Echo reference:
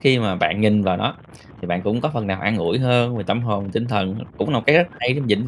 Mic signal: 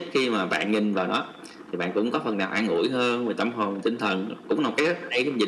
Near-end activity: none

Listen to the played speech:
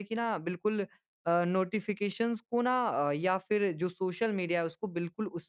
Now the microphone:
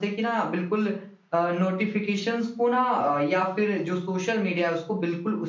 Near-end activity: none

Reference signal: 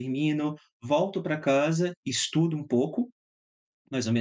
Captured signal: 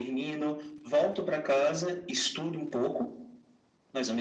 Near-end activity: none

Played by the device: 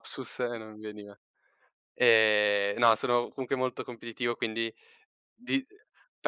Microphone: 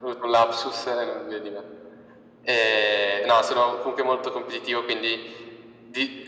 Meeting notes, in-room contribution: none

